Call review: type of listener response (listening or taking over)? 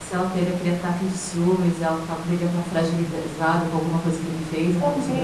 taking over